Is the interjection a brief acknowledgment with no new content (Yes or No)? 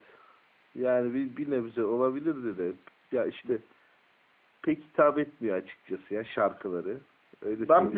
No